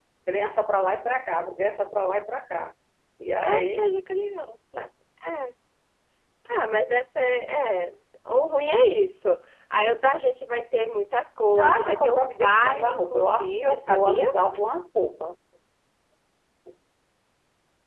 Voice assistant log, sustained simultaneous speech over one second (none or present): present